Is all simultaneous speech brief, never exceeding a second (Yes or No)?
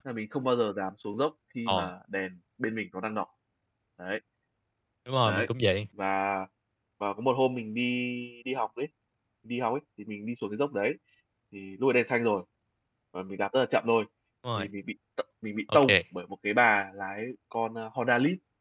Yes